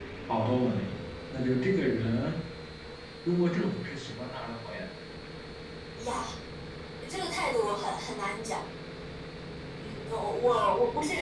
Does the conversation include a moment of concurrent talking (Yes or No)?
No